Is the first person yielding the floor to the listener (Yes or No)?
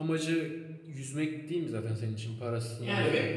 Yes